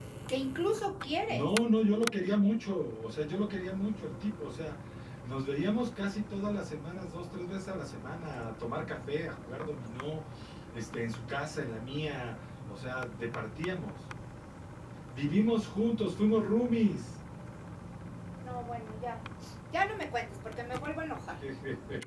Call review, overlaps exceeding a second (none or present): none